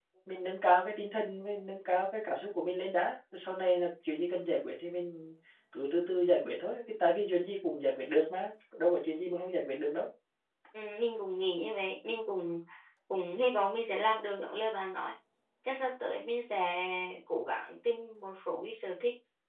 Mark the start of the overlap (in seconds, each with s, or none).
none